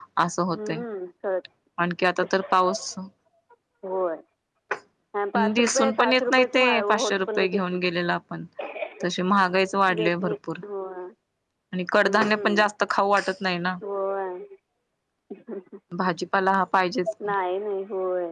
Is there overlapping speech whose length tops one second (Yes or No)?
Yes